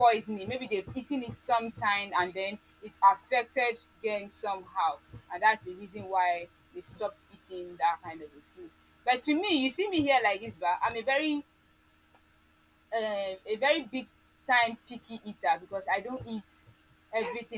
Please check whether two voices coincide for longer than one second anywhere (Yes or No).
No